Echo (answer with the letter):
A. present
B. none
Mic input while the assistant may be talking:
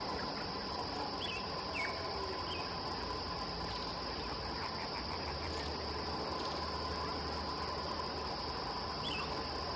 B